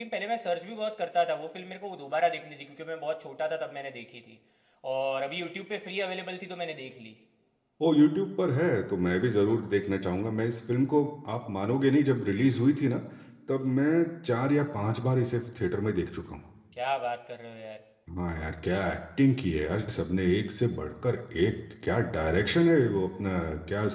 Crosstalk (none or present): none